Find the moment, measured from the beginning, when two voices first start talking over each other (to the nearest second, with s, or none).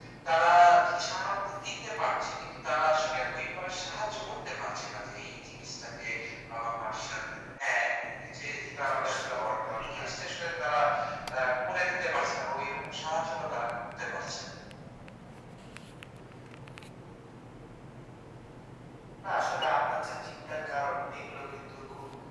9 s